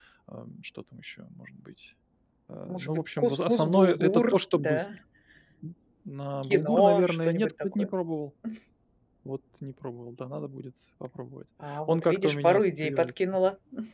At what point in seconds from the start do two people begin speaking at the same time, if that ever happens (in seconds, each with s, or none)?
2.7 s